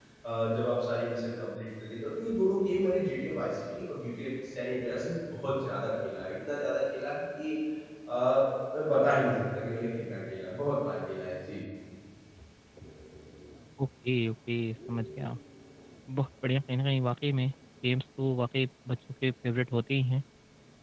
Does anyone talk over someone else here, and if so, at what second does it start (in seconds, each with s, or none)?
none